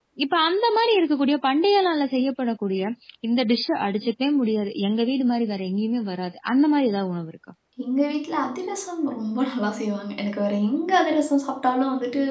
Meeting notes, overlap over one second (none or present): none